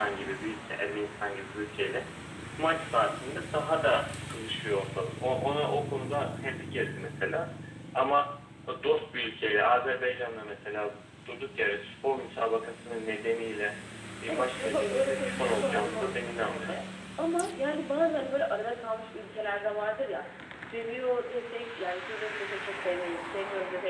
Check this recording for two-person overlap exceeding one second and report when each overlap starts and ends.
14.3-16.8

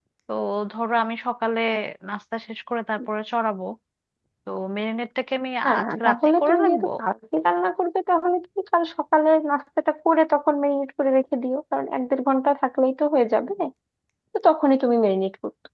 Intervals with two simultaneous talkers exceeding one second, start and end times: 5.7-6.9

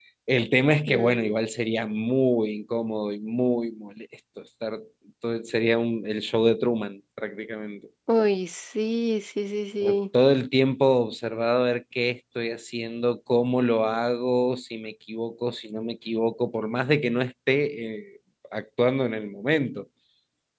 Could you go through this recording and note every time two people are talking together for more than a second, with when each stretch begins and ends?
none

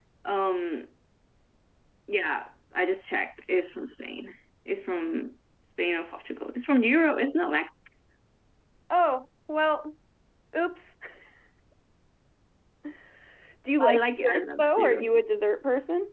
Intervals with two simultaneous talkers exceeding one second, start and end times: 13.8-15.1

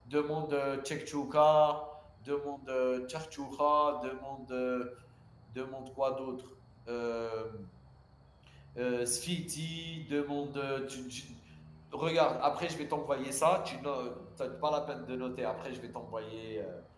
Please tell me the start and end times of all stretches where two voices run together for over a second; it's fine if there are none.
none

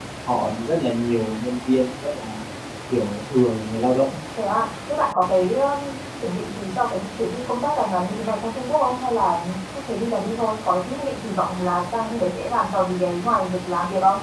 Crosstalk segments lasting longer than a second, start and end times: none

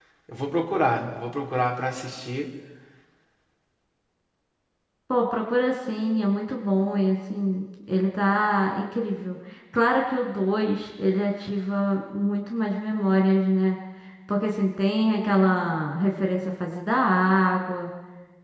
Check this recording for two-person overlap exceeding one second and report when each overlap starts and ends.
none

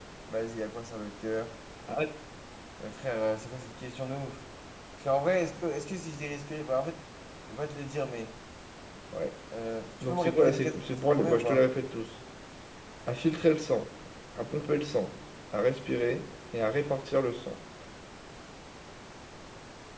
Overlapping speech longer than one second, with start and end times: 10.0-11.6

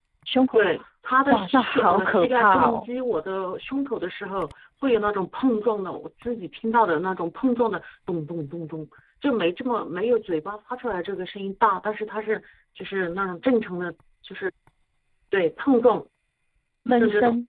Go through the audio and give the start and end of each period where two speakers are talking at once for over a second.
1.3-2.9

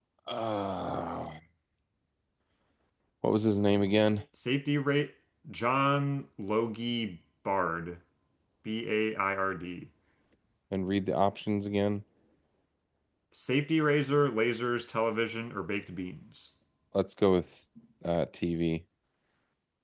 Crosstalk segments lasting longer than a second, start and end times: none

